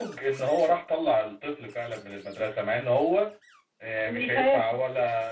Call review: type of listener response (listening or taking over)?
listening